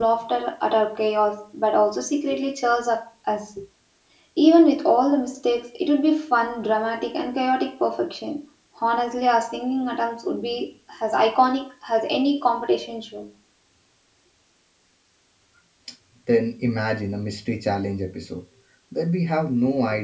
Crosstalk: none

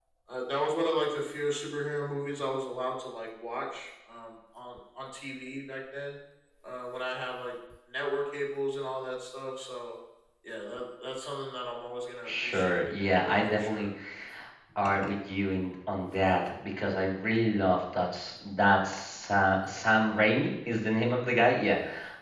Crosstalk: present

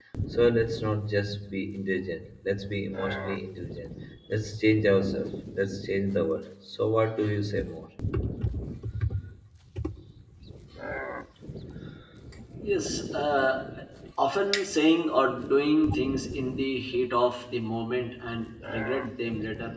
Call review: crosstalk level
none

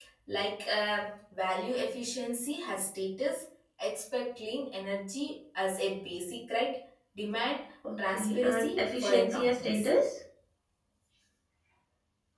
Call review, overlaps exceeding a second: present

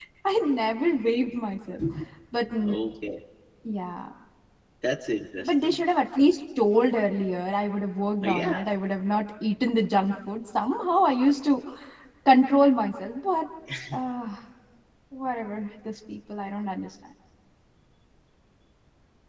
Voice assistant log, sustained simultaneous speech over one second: none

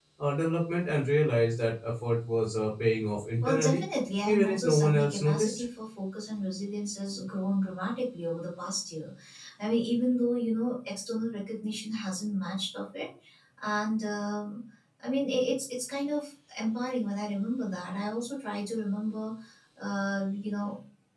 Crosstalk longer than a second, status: present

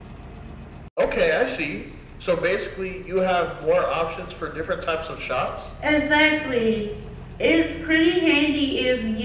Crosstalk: none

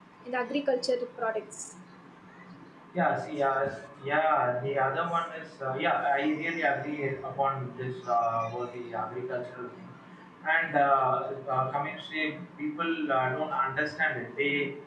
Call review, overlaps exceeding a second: none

